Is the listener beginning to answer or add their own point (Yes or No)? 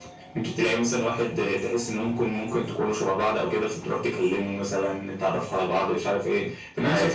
No